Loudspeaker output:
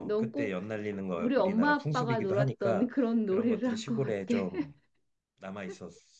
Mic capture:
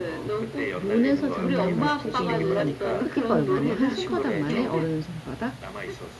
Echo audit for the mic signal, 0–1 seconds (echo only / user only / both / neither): both